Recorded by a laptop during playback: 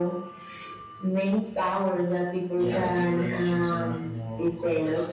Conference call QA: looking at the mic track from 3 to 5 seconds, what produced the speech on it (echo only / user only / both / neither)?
both